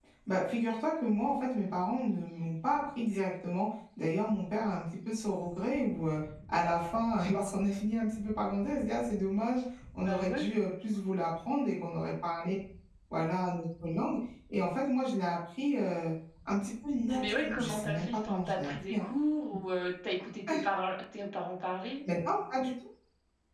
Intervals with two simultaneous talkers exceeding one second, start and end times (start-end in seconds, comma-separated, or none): 17.1-19.0